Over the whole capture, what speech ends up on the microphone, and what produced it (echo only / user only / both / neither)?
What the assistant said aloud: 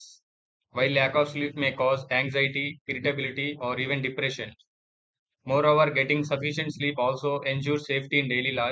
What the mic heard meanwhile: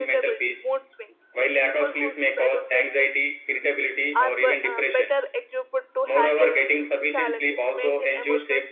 both